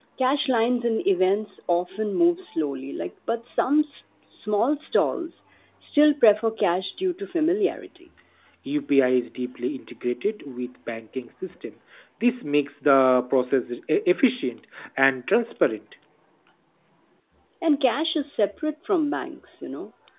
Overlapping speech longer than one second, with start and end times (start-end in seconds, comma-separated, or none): none